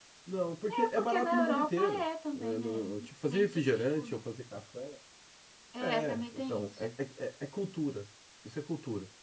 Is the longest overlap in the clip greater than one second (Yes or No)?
Yes